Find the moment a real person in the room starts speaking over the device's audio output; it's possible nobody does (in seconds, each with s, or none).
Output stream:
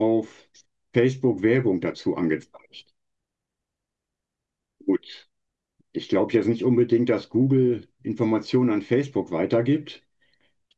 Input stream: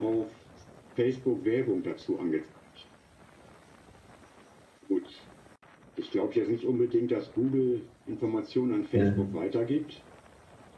8.9 s